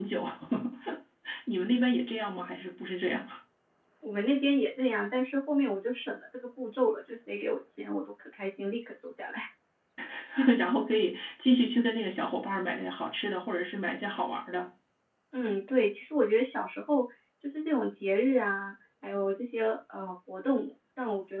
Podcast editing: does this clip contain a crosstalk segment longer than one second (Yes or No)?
No